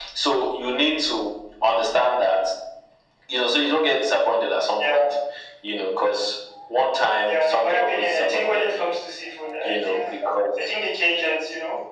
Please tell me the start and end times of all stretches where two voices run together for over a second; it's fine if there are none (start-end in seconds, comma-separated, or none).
7.2-8.9